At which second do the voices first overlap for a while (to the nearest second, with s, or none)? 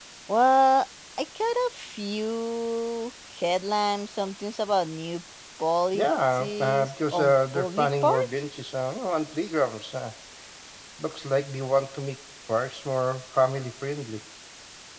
6 s